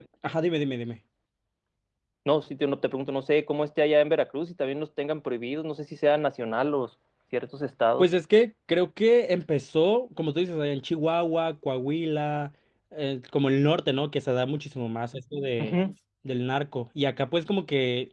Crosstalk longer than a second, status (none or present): none